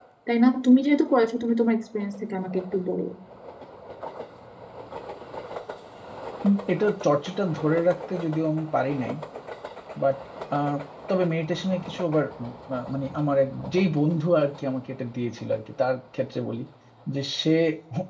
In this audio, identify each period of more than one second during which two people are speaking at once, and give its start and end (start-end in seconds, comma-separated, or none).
none